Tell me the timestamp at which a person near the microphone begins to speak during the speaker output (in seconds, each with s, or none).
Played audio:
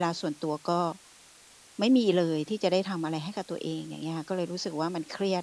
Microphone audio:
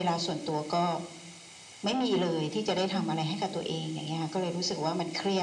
2.9 s